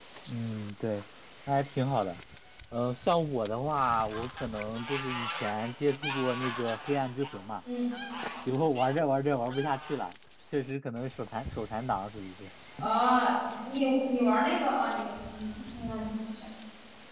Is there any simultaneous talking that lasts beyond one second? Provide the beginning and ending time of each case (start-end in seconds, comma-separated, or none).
none